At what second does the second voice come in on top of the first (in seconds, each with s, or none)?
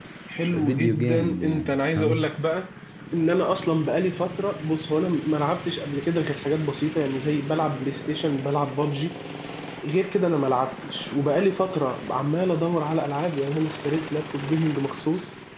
0.5 s